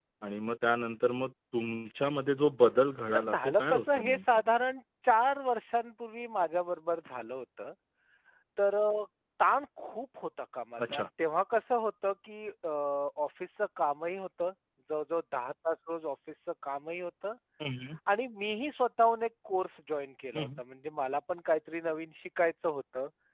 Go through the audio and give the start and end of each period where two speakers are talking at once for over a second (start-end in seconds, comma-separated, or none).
3.1-4.4